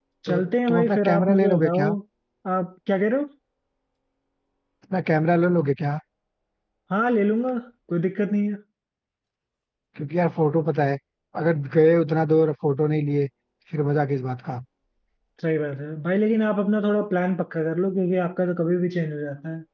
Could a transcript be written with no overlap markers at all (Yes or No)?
No